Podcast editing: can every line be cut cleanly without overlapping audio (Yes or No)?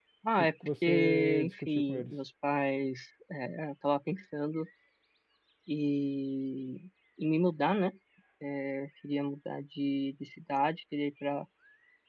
No